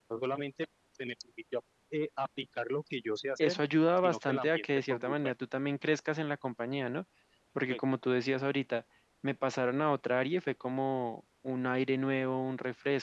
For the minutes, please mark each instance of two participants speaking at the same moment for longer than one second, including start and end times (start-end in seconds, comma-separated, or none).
4.0-5.3